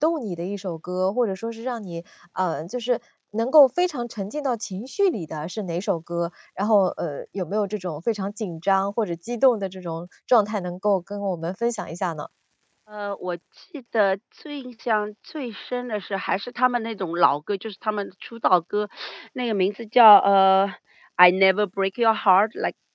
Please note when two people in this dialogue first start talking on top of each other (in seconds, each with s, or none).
none